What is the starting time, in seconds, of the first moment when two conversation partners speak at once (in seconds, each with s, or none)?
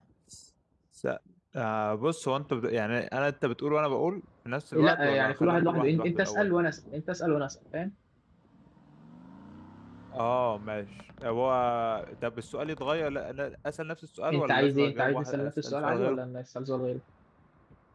4.7 s